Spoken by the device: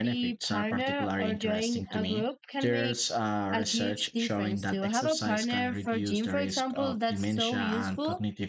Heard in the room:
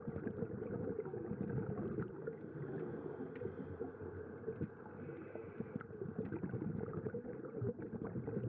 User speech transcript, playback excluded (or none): none